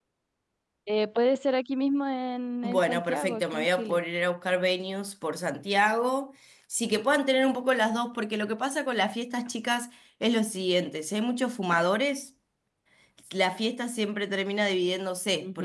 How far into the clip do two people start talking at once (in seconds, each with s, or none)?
2.6 s